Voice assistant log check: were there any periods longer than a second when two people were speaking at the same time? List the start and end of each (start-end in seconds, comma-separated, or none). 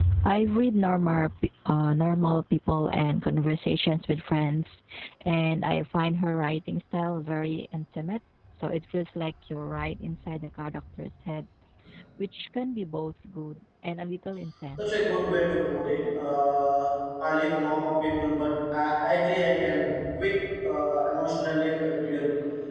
none